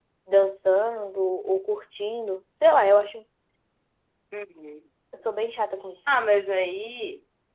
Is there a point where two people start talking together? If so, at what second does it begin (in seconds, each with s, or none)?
none